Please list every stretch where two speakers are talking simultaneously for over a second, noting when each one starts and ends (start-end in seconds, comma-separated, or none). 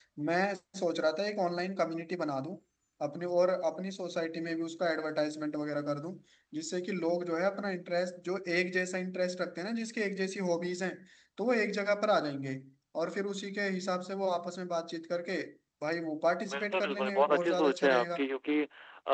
16.5-18.2